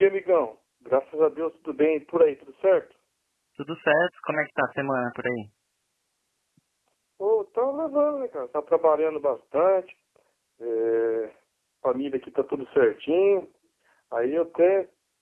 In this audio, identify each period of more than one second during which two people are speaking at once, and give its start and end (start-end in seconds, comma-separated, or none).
none